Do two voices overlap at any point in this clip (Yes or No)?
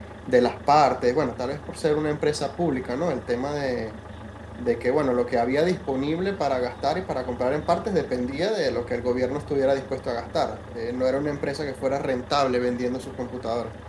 No